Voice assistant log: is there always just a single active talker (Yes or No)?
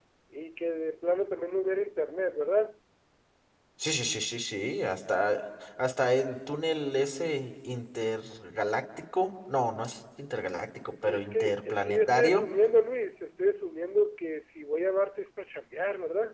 No